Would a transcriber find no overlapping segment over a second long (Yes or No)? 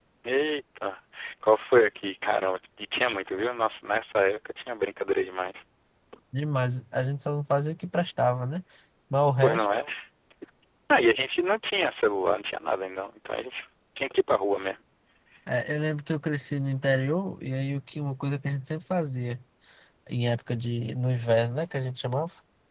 Yes